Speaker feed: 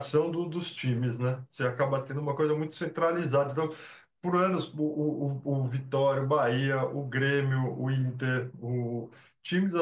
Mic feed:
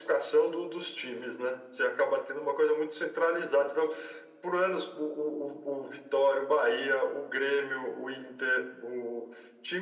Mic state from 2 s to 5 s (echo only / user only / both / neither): echo only